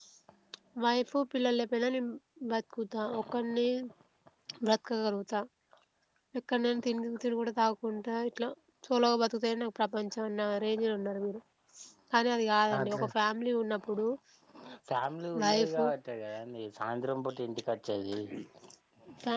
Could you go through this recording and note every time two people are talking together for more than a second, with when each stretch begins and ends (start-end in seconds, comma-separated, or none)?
none